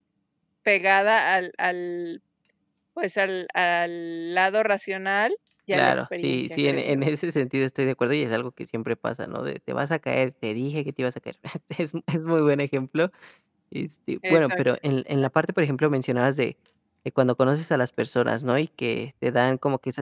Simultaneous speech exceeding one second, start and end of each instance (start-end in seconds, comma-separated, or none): 5.7-7.0